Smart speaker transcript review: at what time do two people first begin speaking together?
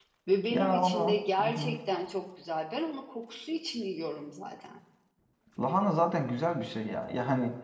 0.5 s

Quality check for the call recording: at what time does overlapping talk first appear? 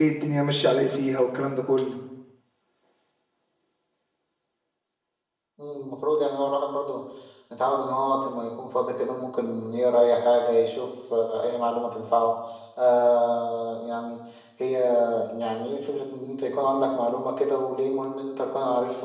none

